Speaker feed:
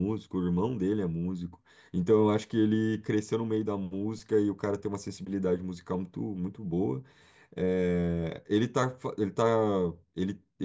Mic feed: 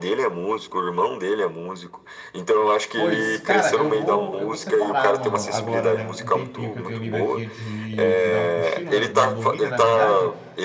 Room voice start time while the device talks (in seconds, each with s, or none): 3.0 s